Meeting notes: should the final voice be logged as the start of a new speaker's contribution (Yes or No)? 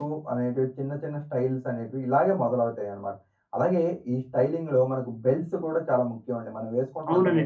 Yes